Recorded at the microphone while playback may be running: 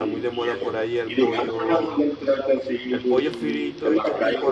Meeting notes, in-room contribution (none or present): present